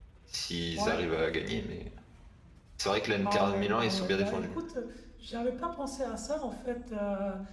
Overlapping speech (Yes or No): Yes